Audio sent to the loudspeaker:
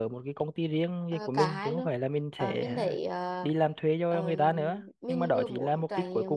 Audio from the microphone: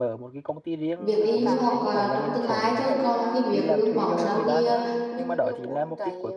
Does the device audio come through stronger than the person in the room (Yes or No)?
No